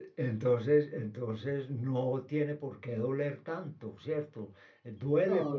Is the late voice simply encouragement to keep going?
Yes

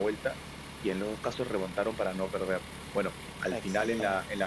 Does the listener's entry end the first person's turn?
No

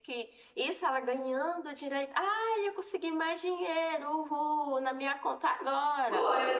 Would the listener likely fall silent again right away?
No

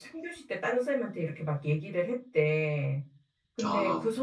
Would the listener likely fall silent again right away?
Yes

